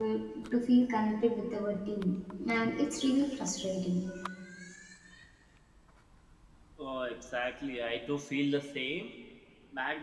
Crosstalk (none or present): none